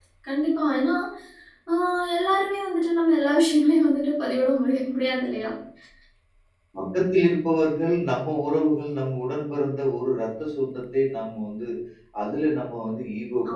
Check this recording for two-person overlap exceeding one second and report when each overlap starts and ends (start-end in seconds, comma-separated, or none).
none